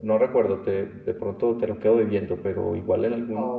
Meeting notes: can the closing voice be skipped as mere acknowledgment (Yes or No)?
Yes